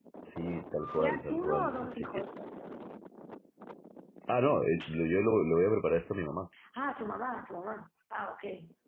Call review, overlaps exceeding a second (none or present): present